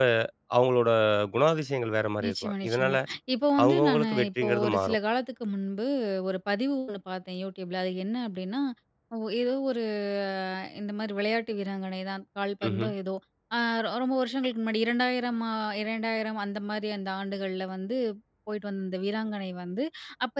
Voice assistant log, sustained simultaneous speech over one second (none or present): present